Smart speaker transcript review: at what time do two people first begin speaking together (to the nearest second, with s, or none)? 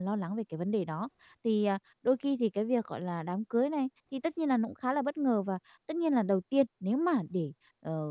none